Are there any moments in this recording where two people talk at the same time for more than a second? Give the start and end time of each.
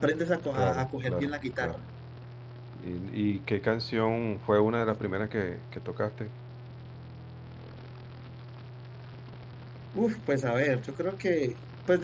0.5-1.8

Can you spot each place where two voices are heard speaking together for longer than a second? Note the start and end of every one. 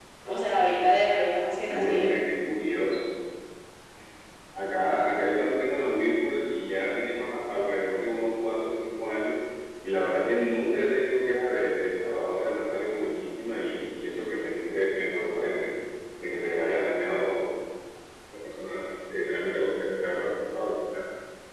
none

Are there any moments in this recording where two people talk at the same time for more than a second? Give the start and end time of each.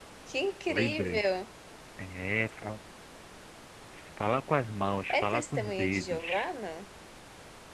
5.1-6.5

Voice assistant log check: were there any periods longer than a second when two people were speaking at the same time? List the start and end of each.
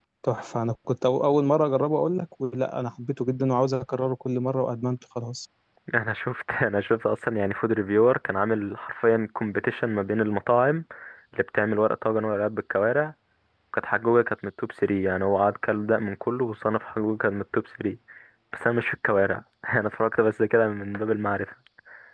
none

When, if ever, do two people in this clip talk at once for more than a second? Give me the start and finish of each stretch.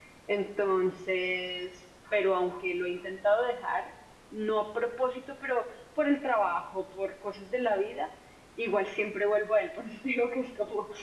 none

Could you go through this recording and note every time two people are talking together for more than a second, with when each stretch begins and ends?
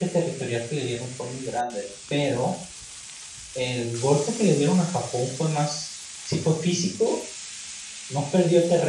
none

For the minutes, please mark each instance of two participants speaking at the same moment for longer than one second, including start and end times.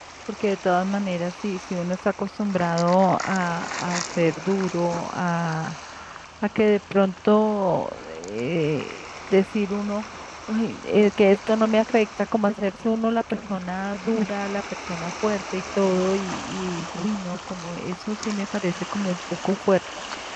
none

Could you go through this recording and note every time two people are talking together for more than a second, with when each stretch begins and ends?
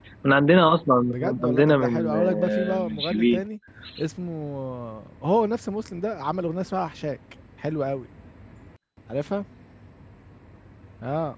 1.1-3.4

